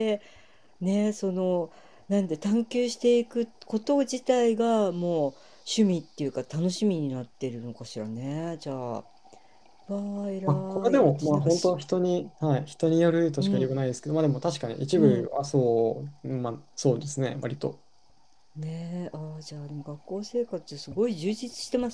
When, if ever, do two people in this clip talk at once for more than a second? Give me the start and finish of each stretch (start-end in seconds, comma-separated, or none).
10.5-11.7